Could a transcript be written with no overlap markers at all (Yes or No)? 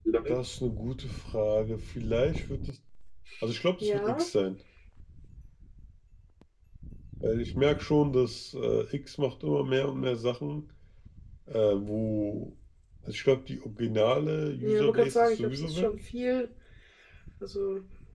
No